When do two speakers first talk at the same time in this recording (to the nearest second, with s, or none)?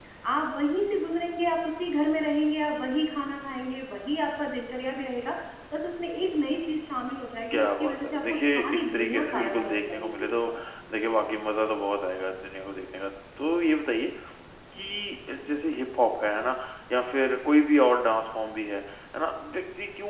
8 s